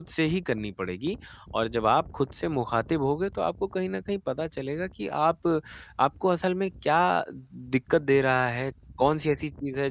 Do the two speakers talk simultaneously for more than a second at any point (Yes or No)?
No